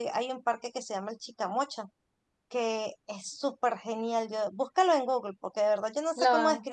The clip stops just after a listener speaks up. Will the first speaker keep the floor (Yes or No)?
Yes